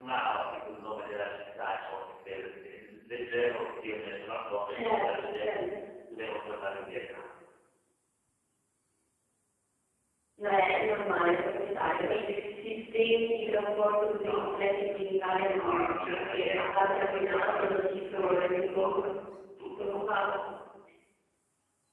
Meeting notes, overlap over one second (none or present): present